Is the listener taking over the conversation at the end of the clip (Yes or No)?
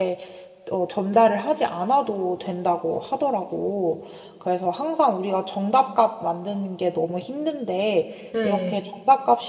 No